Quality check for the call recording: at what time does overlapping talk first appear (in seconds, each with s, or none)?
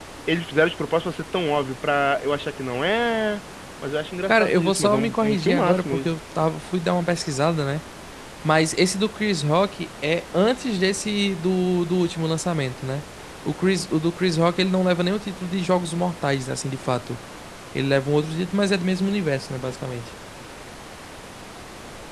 4.3 s